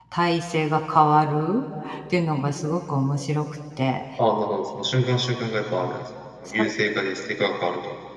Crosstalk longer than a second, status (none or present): none